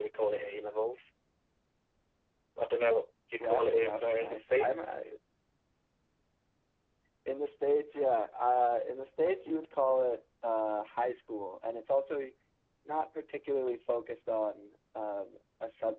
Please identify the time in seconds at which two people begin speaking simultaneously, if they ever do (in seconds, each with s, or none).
3.4 s